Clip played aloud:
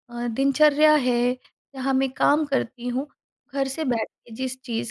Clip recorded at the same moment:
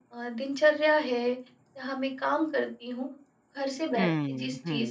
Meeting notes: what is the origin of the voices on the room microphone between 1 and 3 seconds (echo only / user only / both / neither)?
echo only